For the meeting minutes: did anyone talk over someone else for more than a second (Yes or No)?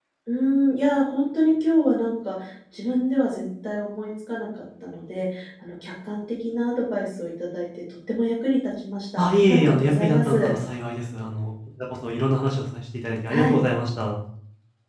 Yes